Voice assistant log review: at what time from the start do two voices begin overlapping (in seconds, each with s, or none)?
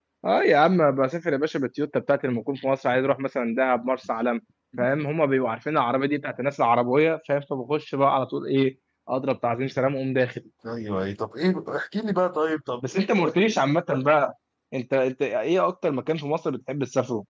none